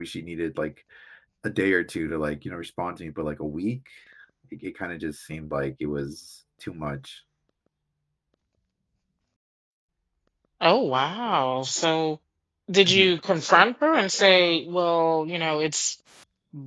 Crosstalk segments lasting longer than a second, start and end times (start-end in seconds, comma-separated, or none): none